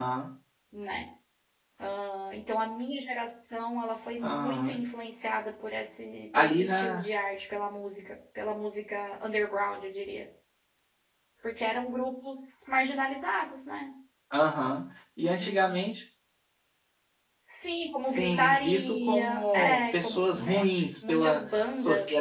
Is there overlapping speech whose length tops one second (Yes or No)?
Yes